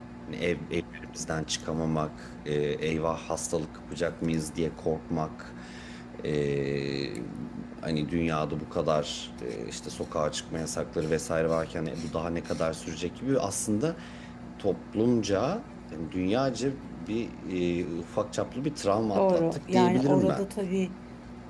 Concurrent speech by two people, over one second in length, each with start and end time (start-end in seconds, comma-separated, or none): 19.1-20.4